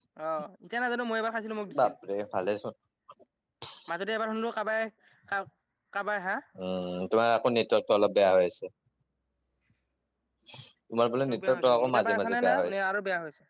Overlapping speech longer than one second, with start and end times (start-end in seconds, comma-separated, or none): 11.3-12.8